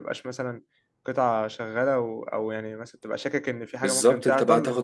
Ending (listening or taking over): taking over